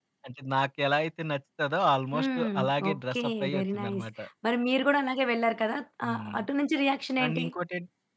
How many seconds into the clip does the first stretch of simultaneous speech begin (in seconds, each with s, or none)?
2.1 s